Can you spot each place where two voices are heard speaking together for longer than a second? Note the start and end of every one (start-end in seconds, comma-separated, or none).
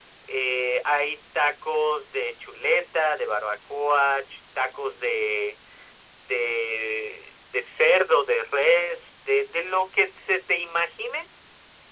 none